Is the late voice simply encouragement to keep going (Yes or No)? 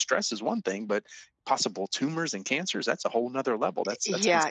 No